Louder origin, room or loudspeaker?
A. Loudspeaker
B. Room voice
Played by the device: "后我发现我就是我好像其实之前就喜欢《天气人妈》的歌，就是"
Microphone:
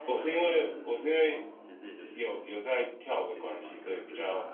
B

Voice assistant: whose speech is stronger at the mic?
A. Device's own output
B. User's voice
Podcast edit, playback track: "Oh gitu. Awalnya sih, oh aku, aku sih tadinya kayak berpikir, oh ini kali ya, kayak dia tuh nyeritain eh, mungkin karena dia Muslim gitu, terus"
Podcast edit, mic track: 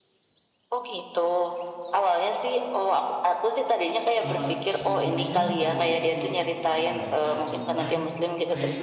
A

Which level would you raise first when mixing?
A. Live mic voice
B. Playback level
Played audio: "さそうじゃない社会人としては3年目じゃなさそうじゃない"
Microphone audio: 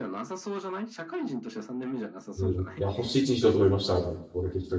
B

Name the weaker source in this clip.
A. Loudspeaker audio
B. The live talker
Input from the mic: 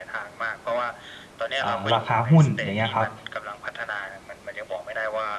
A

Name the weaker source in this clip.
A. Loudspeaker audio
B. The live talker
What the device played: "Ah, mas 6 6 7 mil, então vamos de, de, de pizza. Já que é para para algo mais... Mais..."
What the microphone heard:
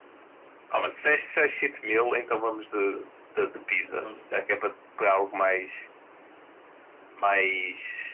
B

